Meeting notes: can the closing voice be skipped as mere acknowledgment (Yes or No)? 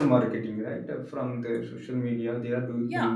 Yes